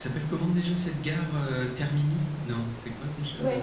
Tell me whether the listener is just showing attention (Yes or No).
No